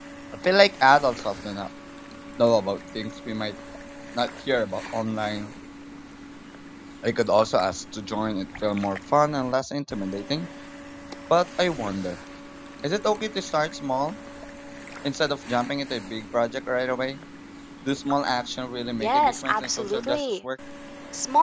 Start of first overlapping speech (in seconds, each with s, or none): 19.0 s